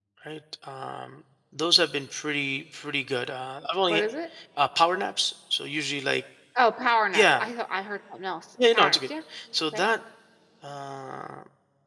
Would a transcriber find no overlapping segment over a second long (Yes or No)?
Yes